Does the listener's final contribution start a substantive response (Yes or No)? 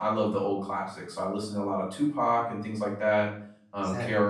No